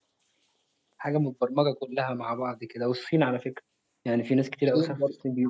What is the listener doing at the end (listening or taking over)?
taking over